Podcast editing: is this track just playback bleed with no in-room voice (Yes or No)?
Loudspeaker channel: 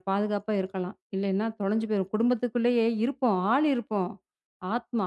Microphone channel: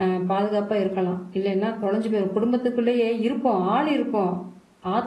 Yes